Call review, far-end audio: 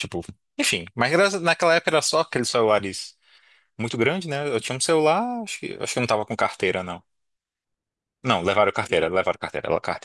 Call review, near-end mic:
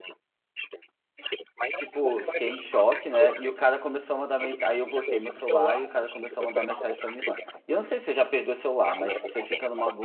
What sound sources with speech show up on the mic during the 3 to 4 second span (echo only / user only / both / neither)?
both